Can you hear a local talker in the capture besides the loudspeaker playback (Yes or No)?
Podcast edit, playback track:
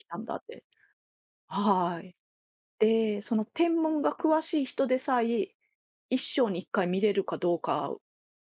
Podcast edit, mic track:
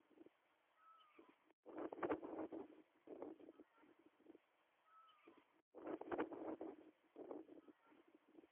No